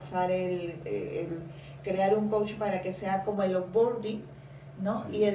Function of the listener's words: listening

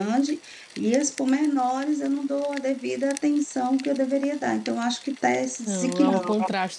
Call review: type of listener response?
taking over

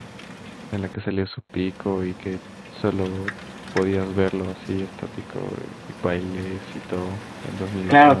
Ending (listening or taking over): taking over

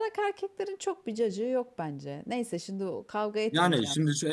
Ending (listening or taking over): taking over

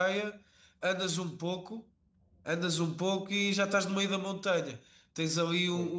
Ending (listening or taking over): listening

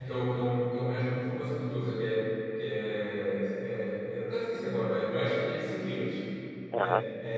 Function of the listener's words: listening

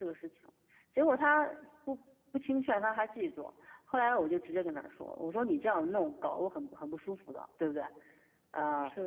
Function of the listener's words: listening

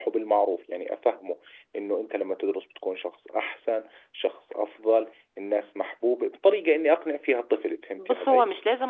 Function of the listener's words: taking over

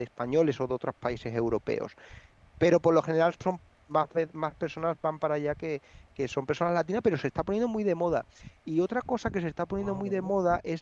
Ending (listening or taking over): listening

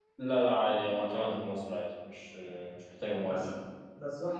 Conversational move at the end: taking over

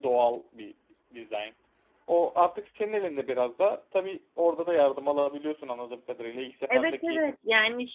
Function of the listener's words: taking over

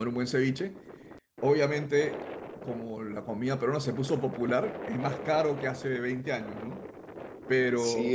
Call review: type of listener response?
taking over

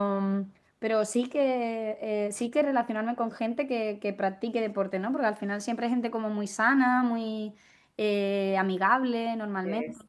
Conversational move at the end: taking over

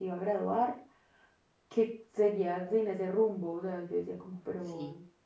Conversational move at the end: listening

